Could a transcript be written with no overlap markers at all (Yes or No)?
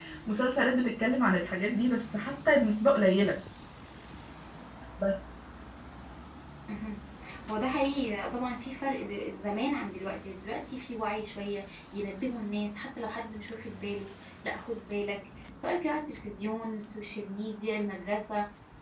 Yes